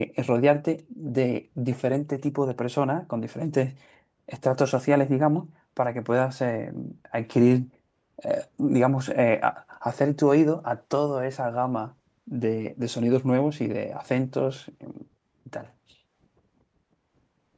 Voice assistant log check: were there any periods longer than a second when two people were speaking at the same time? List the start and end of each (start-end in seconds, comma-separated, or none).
none